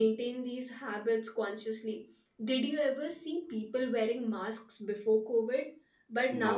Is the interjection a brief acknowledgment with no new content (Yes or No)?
Yes